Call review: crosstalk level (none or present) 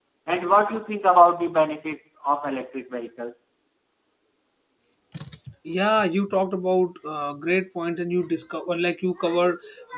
none